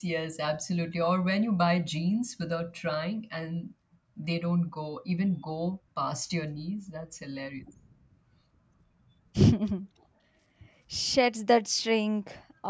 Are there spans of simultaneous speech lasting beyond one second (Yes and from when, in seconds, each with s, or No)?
No